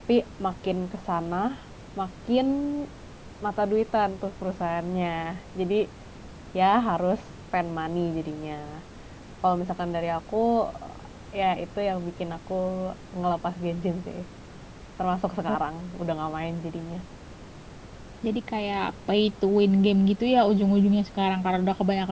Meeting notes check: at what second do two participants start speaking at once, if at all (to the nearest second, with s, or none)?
none